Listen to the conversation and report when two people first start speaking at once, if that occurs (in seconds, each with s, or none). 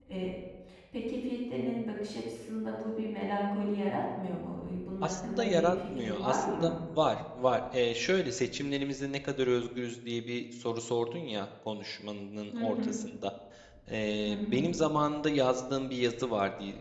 5.0 s